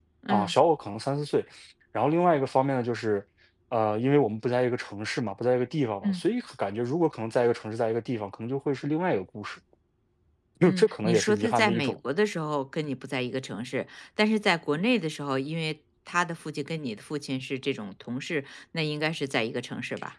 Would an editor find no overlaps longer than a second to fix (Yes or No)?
No